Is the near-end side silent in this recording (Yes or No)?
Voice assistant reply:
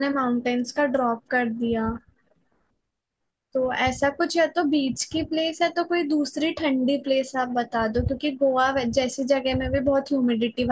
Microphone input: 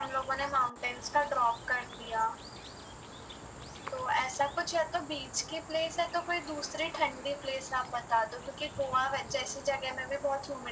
Yes